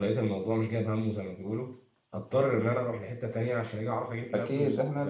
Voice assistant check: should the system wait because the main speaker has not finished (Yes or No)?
No